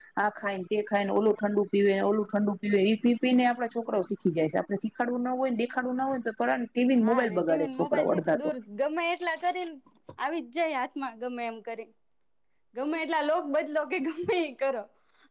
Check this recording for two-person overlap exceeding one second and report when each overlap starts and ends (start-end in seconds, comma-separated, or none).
7.0-8.4